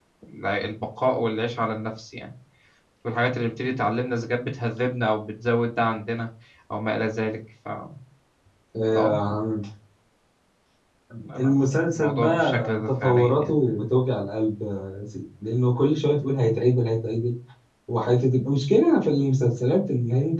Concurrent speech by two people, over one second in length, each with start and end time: 12.0-13.5

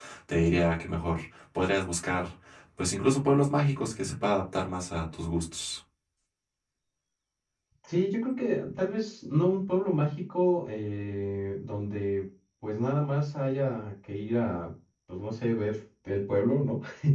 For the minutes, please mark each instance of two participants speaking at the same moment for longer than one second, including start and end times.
none

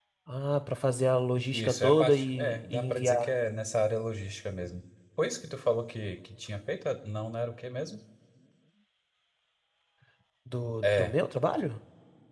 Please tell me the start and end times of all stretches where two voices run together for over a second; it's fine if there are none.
1.5-3.3

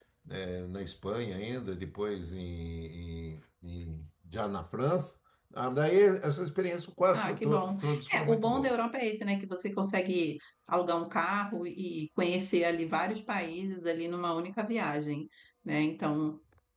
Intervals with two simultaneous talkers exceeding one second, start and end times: 7.1-8.7

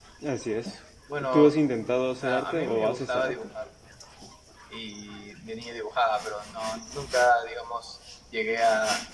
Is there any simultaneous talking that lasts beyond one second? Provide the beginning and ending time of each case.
2.1-3.3

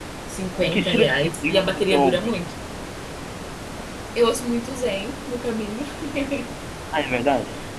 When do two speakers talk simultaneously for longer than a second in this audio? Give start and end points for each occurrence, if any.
0.6-2.4

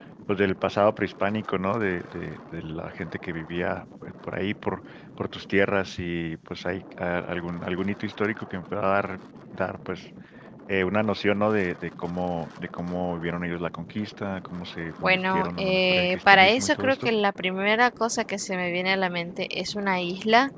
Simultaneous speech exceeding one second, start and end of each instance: 15.0-17.1

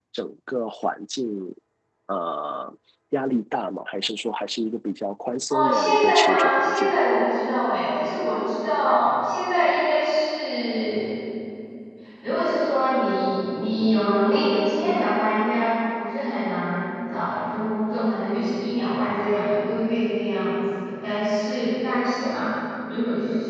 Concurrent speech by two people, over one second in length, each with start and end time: 5.5-7.0

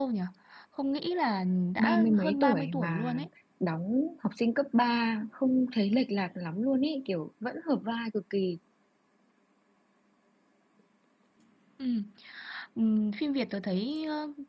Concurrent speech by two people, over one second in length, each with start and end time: 1.8-3.1

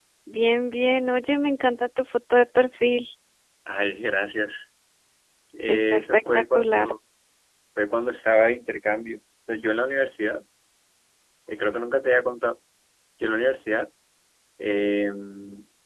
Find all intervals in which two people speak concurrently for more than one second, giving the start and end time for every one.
5.7-6.9

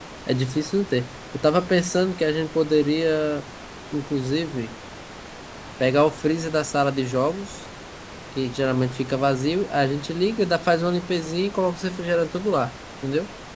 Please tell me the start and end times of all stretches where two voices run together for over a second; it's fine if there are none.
none

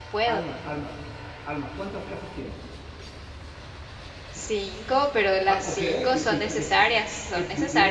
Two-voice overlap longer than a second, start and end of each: 5.5-6.7

